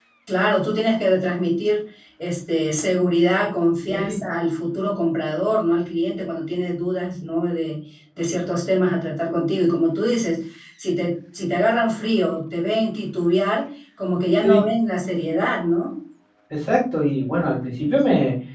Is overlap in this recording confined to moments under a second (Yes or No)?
Yes